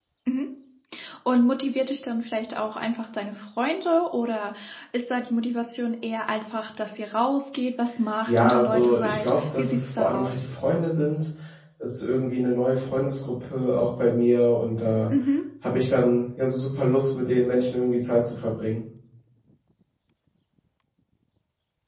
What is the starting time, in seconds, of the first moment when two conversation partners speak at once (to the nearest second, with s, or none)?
8 s